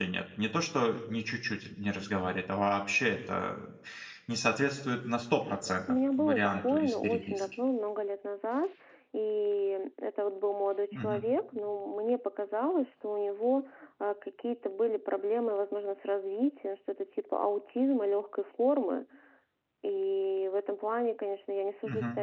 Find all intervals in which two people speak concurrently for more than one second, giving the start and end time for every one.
5.9-7.4

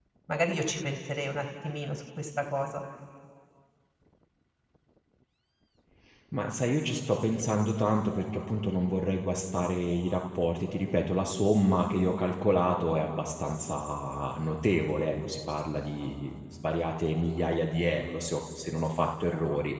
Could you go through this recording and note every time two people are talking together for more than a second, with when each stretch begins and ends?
none

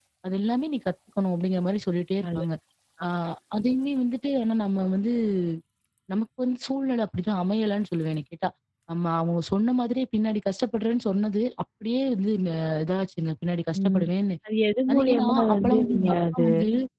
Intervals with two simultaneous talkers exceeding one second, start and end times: 14.9-16.4

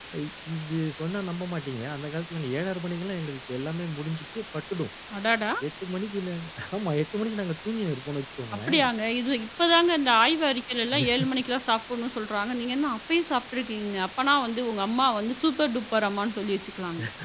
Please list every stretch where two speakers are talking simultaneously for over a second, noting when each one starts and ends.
none

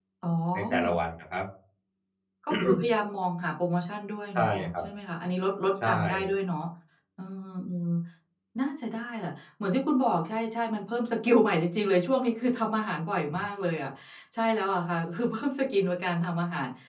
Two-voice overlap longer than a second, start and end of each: none

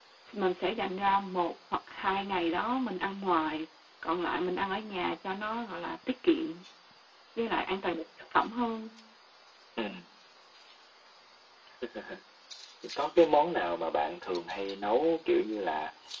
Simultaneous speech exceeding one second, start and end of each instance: none

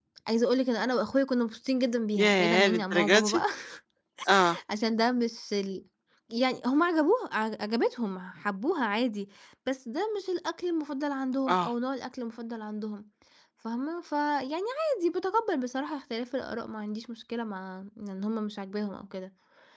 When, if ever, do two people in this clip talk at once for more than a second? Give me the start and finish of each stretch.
2.2-3.4

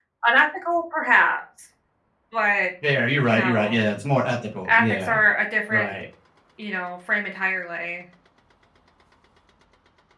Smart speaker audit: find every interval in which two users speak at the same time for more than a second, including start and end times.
none

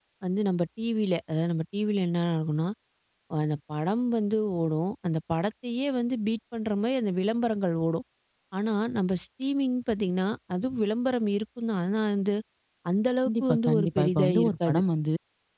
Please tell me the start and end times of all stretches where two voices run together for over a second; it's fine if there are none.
13.2-14.8

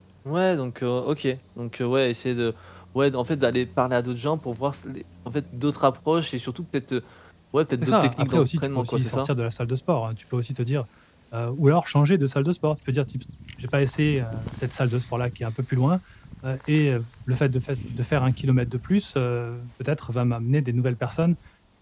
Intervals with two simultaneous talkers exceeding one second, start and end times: 7.8-9.3

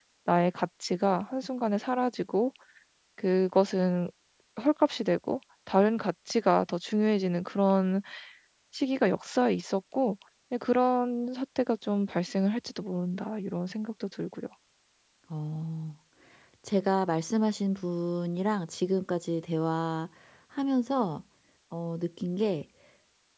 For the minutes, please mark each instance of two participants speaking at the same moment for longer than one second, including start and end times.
none

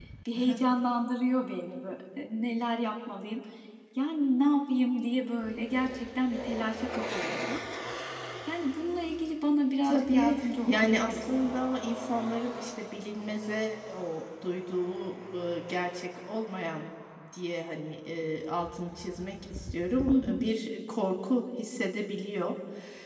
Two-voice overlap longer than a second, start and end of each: 9.8-11.6

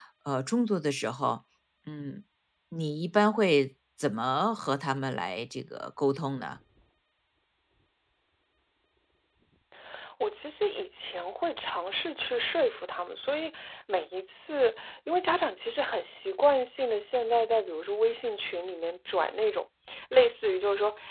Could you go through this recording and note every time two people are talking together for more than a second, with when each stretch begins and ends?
none

